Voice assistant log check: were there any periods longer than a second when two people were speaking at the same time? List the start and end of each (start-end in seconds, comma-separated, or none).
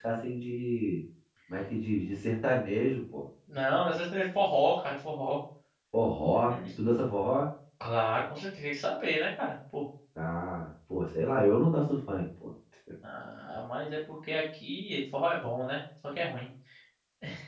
none